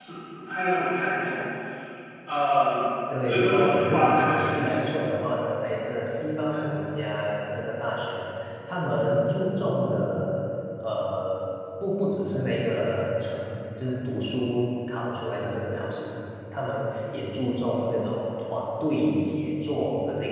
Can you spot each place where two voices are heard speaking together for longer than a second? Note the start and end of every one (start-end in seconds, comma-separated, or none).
3.3-4.7